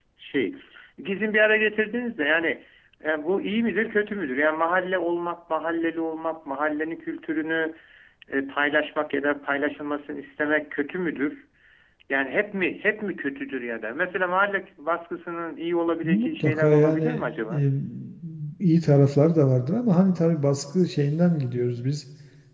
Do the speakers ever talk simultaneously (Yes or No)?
Yes